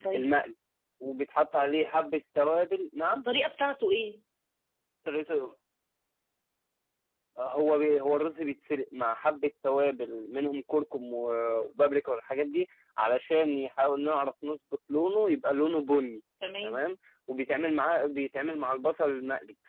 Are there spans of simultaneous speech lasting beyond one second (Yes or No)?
No